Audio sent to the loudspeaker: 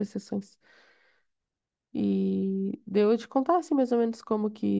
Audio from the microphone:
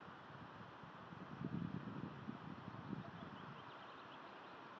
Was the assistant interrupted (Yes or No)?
No